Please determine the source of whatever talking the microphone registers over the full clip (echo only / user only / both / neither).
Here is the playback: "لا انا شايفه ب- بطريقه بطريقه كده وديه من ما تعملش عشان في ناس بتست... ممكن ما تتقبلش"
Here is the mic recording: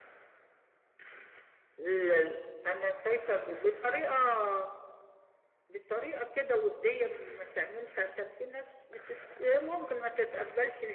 echo only